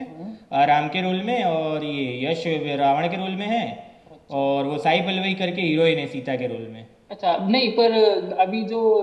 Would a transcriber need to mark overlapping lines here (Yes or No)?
No